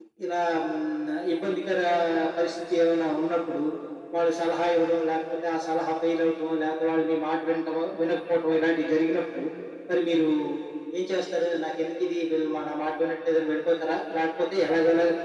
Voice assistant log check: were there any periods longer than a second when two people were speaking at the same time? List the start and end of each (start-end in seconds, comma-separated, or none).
none